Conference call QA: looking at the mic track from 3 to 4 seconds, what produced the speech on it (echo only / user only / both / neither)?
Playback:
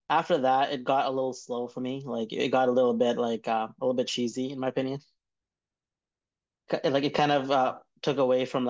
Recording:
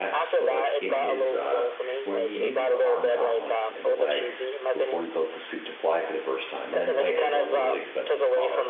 both